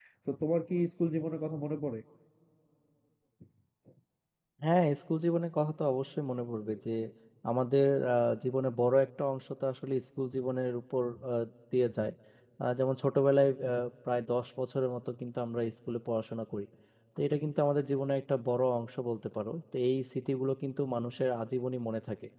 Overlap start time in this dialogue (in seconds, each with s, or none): none